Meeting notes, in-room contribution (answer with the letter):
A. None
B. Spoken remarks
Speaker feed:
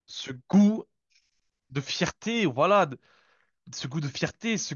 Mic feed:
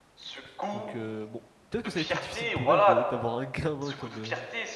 B